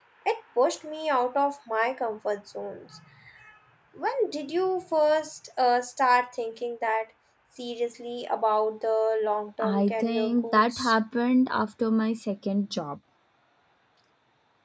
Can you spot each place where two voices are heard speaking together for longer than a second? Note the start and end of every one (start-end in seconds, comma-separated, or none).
9.6-10.9